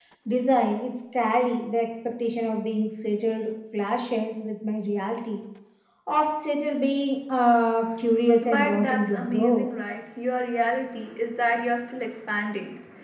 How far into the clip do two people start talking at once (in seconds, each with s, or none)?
8.4 s